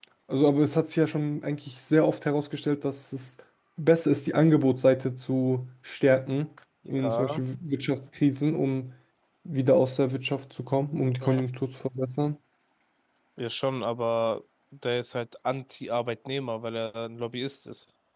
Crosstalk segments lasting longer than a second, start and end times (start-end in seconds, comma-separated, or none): none